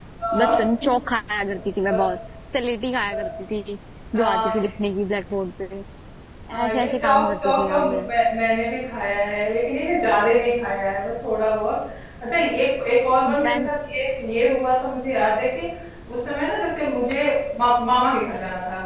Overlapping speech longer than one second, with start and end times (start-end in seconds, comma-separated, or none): 6.7-8.0